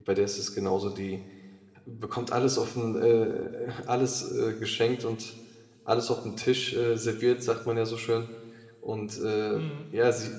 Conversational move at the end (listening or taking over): listening